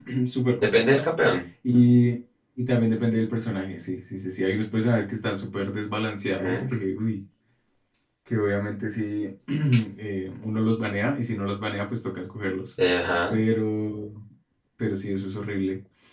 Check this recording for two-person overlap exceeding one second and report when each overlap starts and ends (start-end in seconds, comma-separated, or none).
none